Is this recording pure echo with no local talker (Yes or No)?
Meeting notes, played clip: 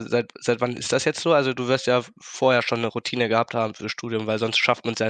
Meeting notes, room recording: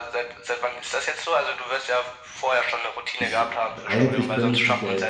No